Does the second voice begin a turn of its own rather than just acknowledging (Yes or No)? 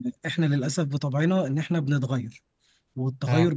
No